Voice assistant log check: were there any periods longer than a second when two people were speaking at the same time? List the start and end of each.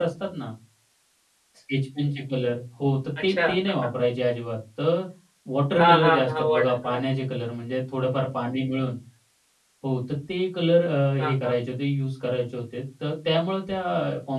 5.8-7.0

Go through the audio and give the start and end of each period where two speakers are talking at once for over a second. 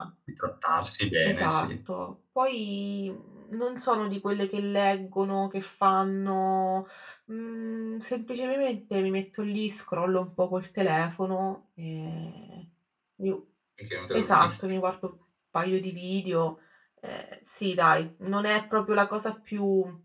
none

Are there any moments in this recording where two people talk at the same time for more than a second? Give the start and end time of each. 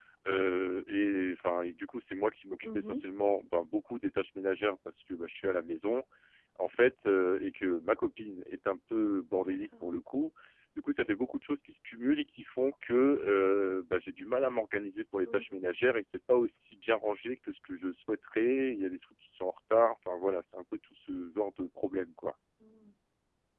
none

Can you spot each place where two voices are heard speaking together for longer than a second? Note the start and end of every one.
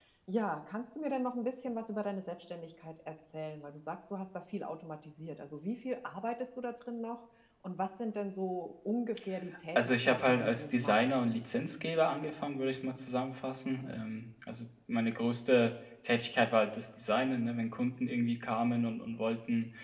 9.8-11.4

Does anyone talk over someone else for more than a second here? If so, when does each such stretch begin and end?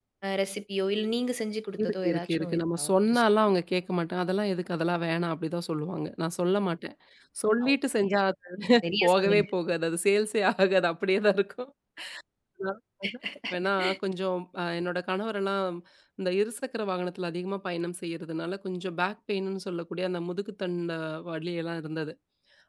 1.8-3.2

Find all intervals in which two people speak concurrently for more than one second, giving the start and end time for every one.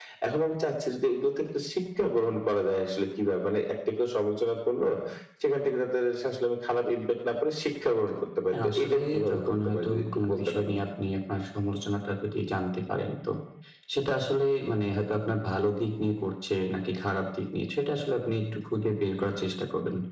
8.5-10.7

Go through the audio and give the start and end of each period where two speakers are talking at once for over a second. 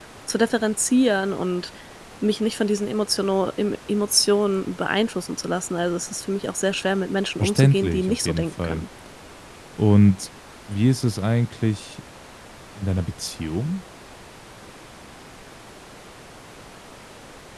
7.4-8.8

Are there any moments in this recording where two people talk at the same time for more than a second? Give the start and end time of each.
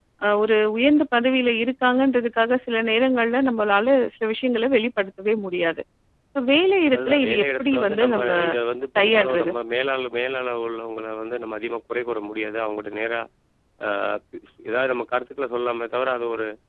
6.9-8.3

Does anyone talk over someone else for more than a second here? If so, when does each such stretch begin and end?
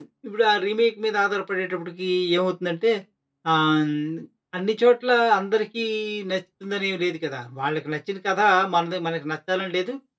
none

